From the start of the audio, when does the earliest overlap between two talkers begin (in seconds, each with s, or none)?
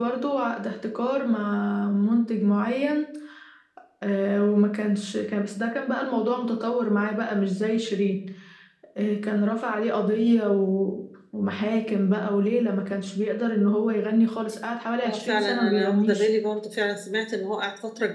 15.0 s